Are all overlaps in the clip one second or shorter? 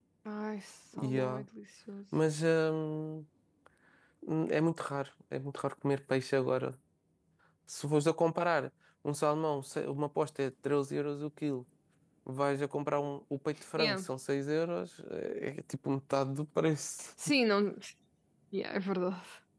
Yes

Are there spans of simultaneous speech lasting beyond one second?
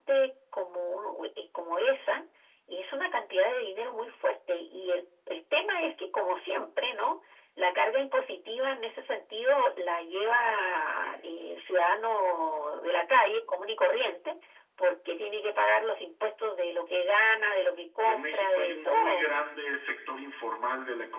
Yes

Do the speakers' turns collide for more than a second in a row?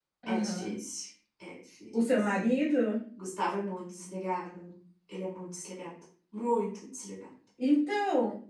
No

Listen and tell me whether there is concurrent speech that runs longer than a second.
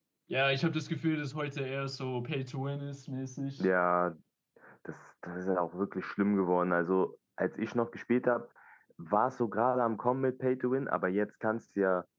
No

